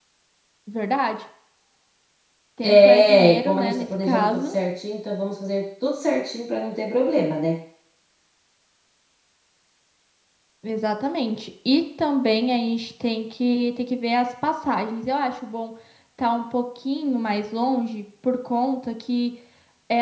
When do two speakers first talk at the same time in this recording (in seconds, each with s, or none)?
2.6 s